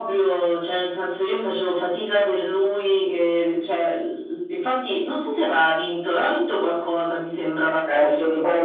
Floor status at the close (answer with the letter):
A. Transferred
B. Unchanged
A